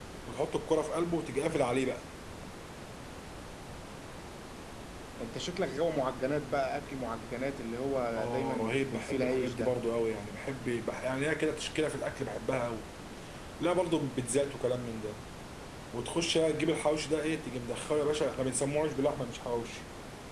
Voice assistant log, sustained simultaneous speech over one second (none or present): present